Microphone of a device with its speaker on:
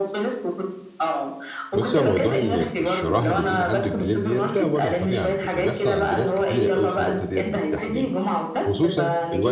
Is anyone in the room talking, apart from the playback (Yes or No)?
Yes